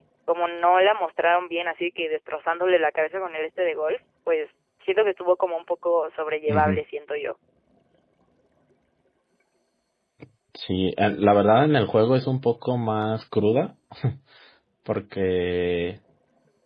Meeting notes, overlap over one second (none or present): none